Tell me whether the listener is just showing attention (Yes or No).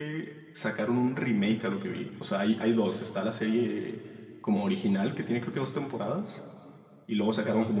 Yes